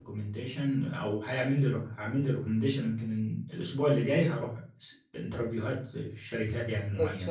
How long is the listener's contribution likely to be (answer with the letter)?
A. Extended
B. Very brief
A